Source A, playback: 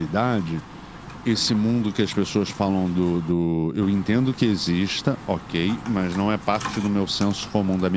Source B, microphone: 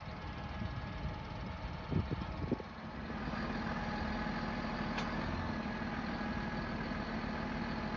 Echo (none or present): none